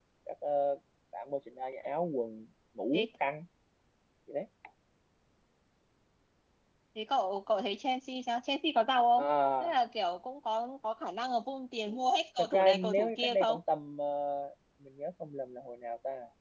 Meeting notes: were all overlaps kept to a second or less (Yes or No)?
No